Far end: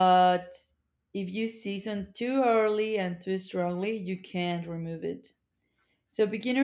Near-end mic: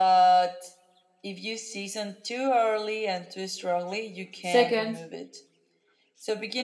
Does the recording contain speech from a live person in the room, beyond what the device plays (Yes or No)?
Yes